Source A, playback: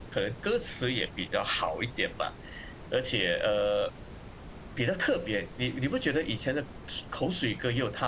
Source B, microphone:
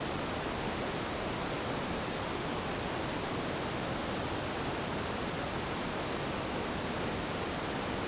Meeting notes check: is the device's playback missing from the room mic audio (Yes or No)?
Yes